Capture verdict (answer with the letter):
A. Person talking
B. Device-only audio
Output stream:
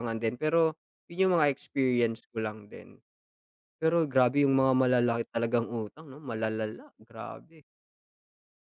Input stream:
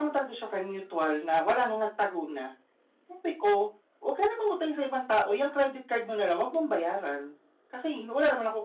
A